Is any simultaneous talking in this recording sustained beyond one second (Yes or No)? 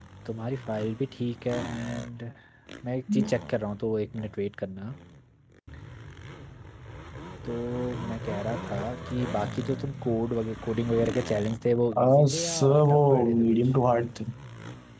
Yes